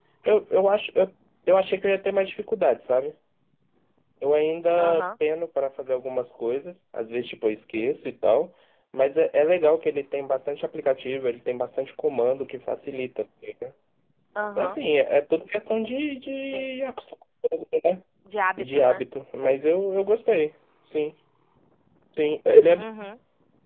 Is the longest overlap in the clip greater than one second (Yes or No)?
No